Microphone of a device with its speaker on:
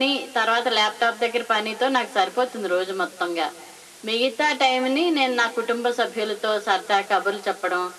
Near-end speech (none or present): none